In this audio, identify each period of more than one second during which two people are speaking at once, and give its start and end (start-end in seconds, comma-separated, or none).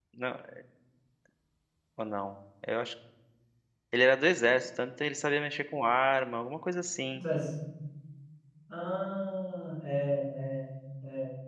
none